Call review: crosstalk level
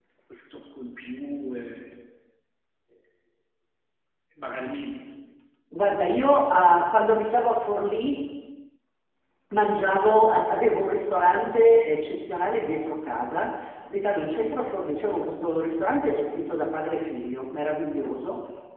none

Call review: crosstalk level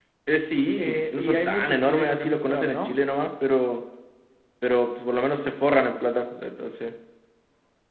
present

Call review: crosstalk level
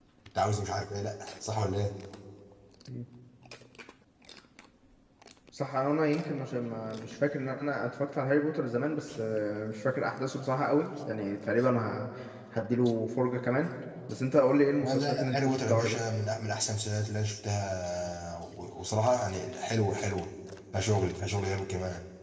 present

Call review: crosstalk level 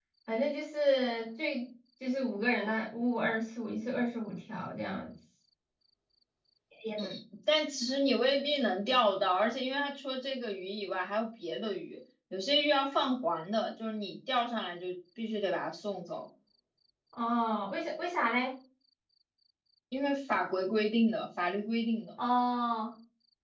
none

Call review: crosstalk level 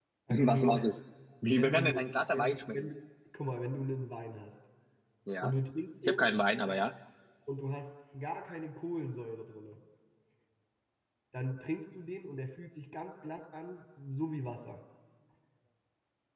present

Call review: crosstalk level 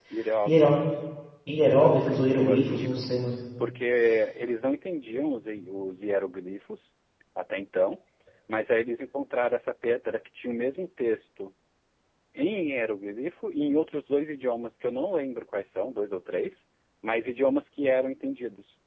present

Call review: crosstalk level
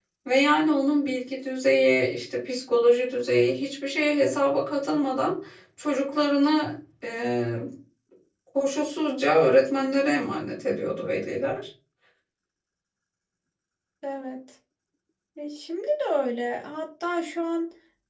none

